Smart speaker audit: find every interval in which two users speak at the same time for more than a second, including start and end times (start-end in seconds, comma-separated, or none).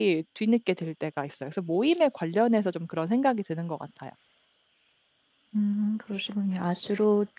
none